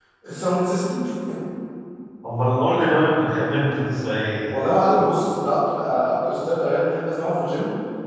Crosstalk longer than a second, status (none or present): none